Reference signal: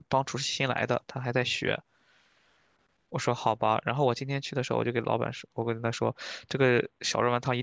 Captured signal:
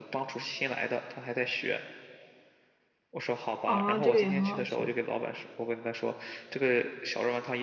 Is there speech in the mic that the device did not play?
Yes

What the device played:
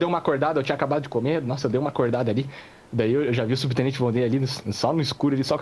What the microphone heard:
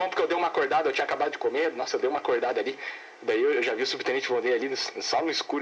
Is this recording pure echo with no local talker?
Yes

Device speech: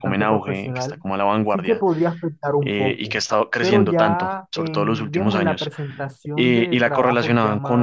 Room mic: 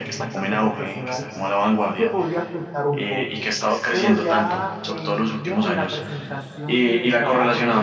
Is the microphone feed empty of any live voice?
Yes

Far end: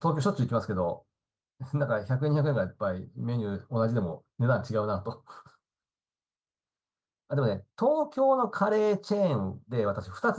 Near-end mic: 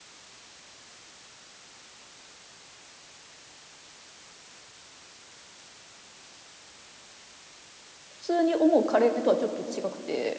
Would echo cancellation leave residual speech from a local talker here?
Yes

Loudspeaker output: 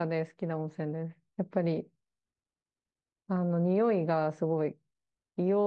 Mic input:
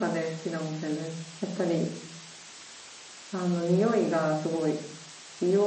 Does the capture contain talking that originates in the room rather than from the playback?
No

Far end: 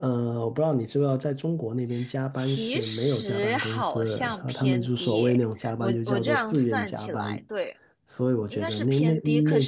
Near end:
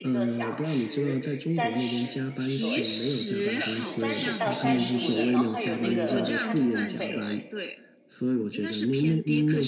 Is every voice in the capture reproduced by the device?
No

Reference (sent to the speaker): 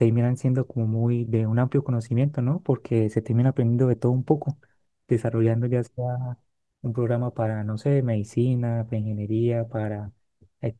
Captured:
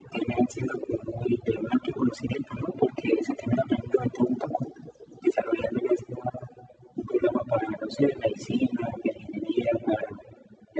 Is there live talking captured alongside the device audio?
No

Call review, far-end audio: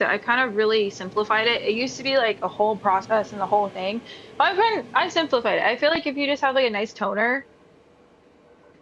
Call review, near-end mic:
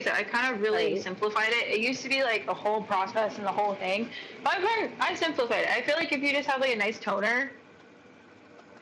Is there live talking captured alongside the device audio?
Yes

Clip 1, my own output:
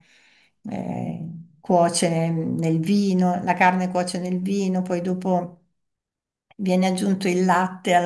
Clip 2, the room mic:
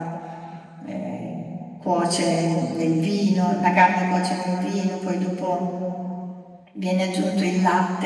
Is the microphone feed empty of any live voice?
Yes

